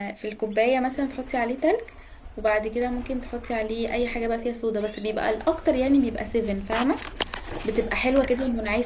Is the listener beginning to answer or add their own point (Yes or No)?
No